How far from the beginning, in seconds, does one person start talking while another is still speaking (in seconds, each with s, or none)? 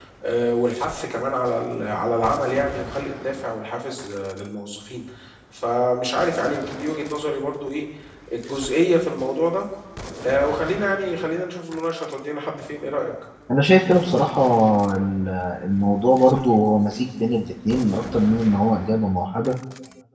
none